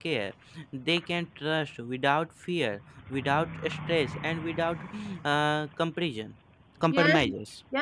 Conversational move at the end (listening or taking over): taking over